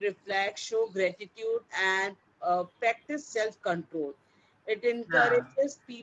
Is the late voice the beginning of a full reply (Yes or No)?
No